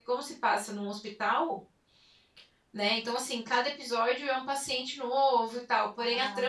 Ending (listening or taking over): listening